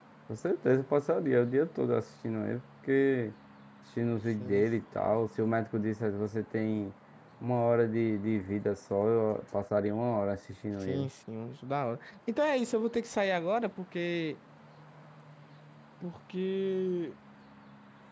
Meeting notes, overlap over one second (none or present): none